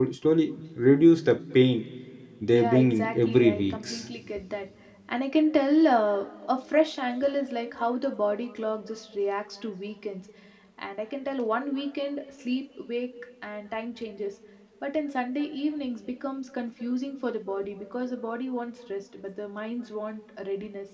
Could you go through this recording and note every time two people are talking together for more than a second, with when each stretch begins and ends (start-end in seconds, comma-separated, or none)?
2.5-4.0